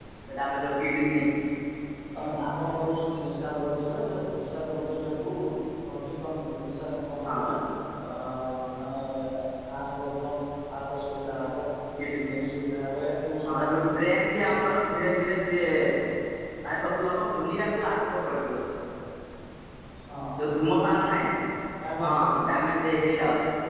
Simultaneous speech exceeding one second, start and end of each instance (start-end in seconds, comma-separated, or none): none